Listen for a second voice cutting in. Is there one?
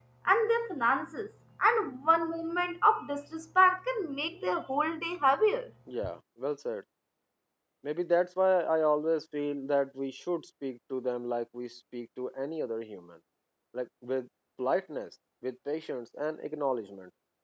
No

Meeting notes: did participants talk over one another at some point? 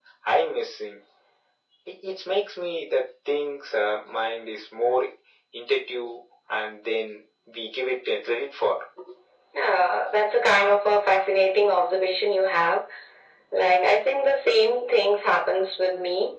No

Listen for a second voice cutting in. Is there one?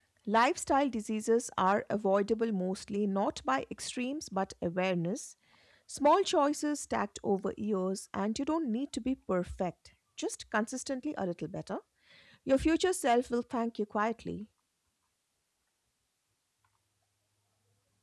No

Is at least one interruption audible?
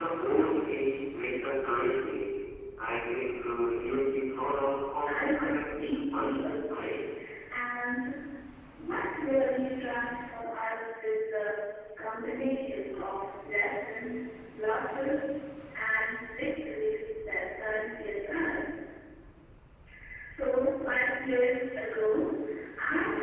Yes, from 5.0 s

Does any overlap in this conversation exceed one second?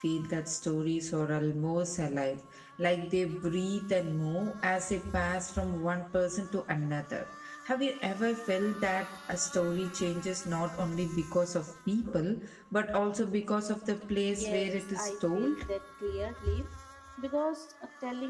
Yes, from 14.3 s

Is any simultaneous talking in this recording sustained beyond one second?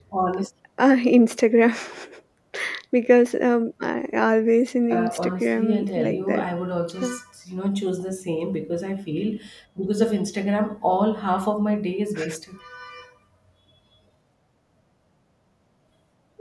Yes, from 4.9 s

